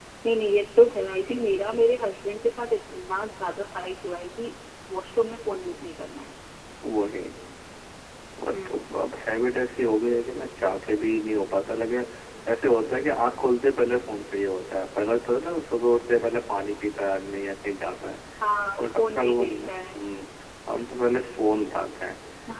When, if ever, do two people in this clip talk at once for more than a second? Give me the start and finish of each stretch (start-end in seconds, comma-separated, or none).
18.8-20.1